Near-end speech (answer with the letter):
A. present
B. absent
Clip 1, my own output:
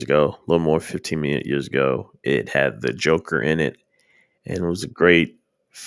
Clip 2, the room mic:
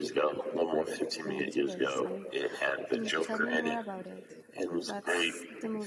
A